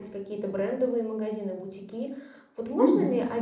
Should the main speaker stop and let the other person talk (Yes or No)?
No